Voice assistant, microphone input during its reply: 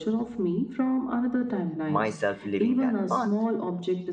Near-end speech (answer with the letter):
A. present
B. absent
A